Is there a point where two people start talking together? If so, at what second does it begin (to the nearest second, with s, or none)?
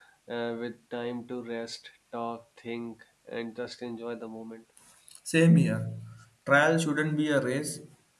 none